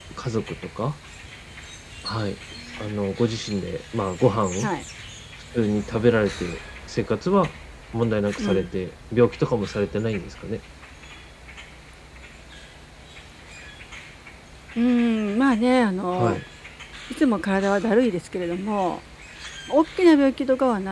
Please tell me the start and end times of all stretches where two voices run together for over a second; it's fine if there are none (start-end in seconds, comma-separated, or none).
none